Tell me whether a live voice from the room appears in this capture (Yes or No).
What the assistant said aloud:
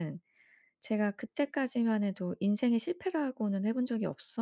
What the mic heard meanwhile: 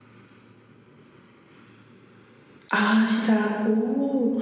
Yes